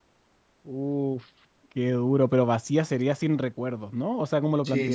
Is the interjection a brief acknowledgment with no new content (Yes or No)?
No